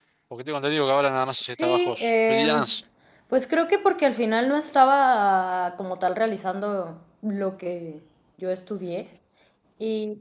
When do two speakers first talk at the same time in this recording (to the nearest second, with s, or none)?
1 s